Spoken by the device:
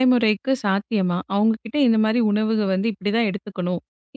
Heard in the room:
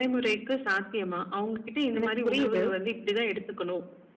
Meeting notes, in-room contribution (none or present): present